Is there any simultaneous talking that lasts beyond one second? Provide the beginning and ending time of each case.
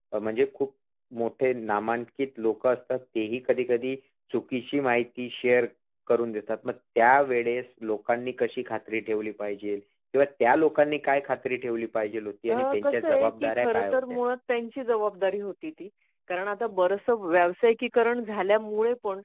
12.5-14.2

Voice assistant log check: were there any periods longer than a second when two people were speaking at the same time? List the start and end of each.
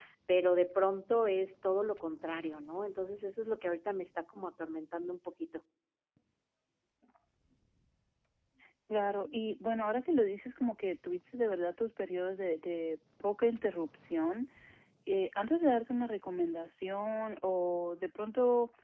none

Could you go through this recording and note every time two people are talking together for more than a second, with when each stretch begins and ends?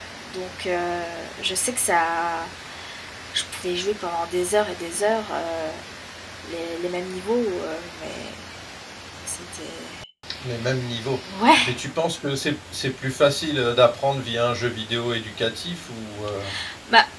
none

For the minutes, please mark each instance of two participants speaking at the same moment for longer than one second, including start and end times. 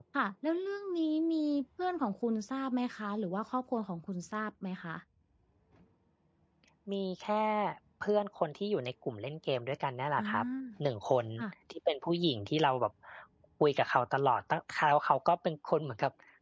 none

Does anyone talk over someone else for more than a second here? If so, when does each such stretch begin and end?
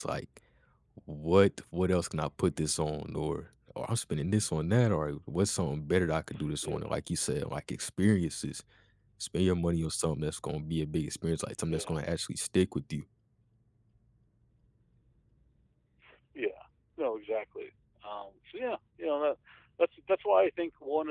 none

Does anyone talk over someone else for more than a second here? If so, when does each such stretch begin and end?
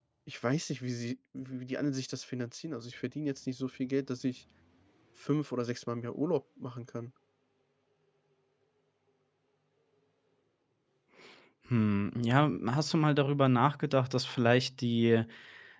none

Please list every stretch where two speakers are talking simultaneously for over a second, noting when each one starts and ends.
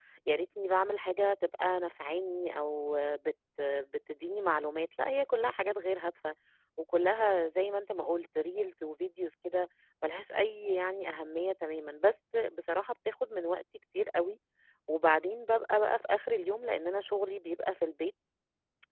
none

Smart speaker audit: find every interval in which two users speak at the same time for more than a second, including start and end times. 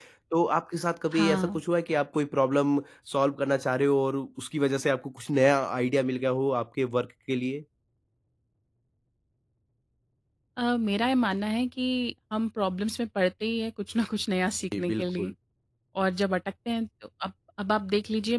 none

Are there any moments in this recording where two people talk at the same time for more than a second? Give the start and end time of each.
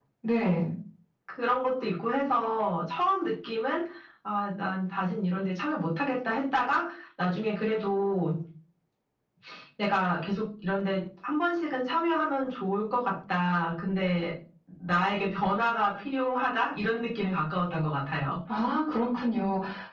none

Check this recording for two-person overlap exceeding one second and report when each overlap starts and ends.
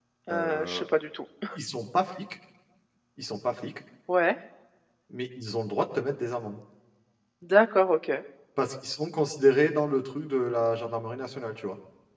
none

